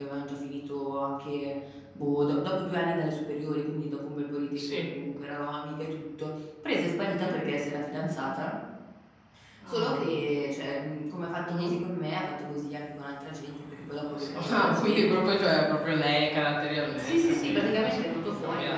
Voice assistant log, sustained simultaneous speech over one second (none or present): present